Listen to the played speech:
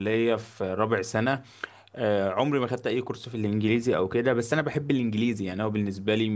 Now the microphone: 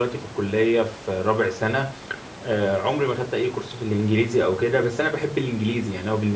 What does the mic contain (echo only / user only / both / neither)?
echo only